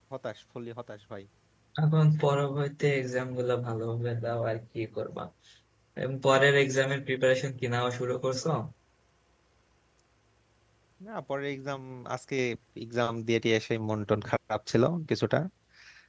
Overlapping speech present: No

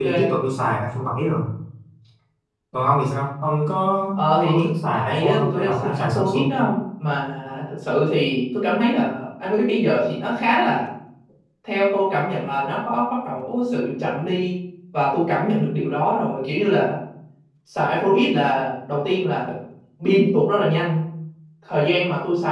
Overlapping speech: Yes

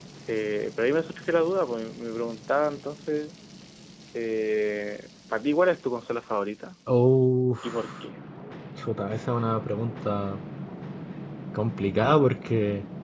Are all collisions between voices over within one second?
Yes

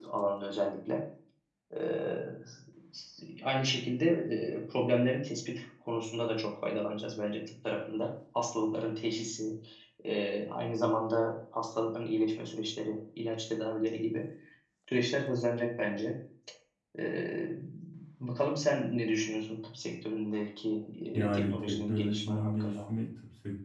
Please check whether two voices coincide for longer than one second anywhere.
Yes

